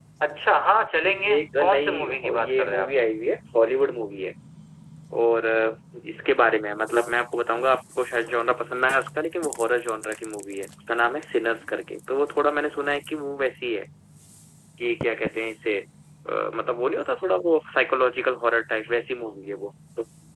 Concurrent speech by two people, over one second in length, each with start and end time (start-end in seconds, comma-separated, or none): 1.4-2.9